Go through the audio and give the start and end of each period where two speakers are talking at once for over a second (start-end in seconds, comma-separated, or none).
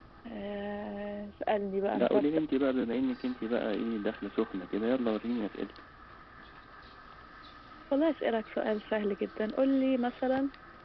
none